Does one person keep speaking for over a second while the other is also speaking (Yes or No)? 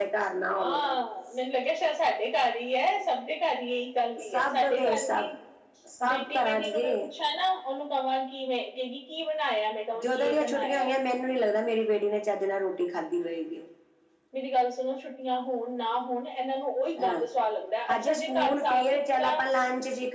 Yes